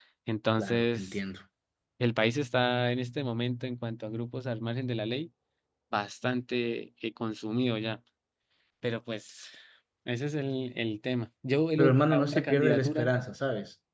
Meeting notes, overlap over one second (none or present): present